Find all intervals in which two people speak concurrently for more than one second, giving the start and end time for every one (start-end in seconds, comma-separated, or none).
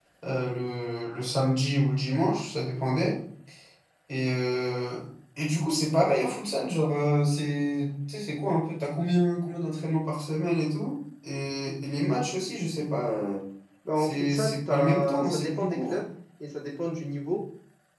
14.0-16.0